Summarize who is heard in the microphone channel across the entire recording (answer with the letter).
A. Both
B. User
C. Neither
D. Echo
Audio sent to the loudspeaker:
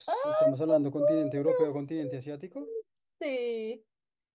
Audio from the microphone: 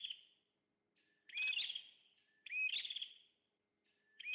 C